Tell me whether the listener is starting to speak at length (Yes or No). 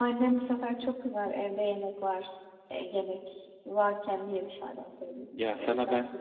Yes